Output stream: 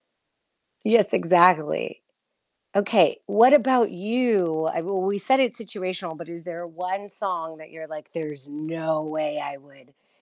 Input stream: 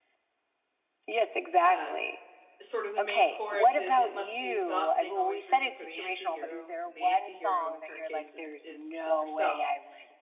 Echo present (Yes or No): Yes